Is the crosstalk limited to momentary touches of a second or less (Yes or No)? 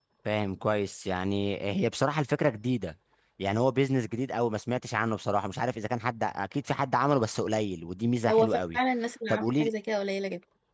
Yes